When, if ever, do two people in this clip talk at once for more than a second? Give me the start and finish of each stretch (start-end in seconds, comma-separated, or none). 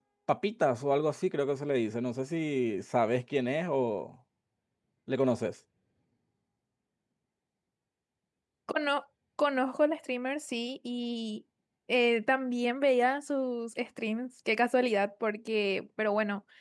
none